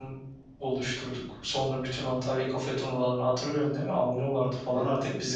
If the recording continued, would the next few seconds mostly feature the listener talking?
Yes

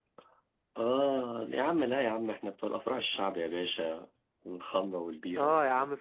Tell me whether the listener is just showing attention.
No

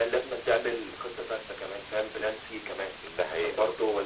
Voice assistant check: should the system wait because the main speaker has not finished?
Yes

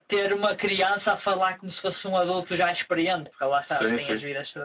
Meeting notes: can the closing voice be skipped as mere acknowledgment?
No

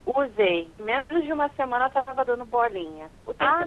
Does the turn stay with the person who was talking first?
Yes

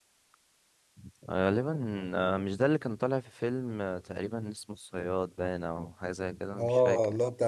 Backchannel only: No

